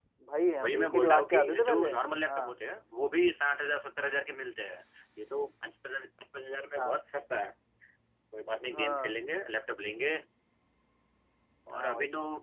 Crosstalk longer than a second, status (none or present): present